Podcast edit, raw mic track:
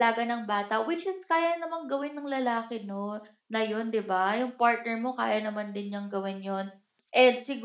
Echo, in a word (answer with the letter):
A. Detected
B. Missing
B